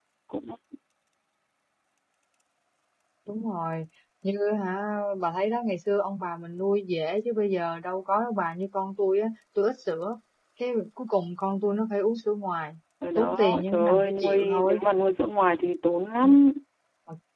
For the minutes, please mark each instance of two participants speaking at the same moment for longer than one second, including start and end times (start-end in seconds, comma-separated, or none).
13.2-14.8